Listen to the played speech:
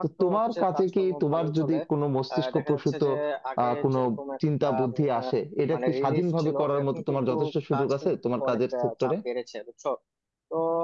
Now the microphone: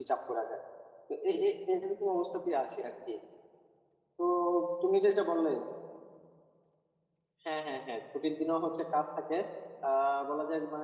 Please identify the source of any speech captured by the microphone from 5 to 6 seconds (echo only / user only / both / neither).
user only